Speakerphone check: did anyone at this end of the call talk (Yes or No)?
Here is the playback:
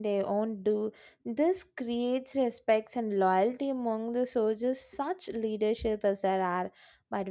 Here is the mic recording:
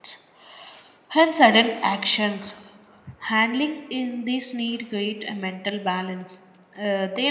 Yes